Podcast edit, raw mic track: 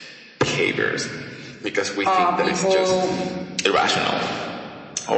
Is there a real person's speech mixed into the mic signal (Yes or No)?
Yes